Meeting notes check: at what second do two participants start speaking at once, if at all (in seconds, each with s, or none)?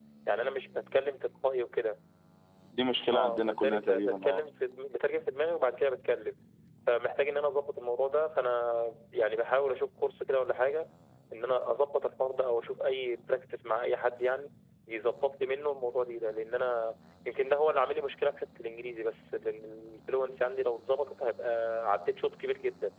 3.1 s